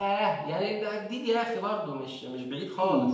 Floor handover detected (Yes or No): Yes